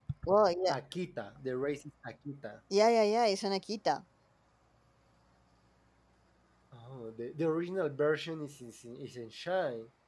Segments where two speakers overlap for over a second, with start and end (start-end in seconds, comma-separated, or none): none